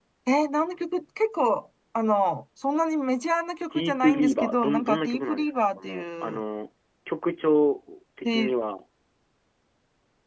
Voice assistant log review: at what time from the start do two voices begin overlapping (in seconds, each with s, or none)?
3.7 s